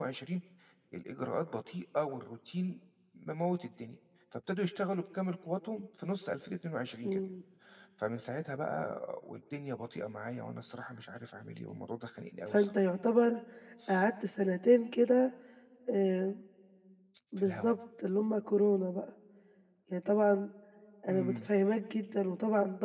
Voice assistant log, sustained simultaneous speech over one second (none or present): none